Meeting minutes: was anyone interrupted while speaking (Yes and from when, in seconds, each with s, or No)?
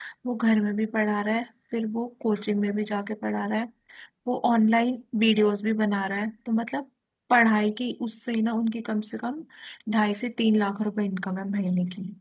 No